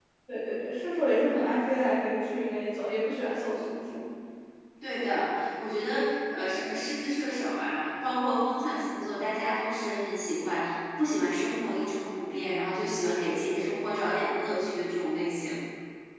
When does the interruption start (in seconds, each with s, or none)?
none